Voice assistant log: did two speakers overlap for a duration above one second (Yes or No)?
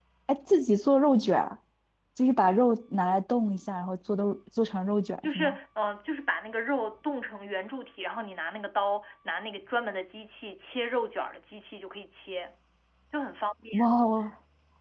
No